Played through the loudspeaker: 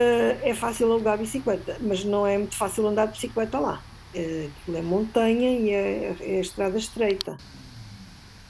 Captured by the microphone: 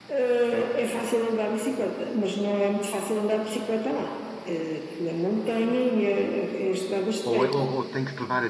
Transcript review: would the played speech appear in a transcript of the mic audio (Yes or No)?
Yes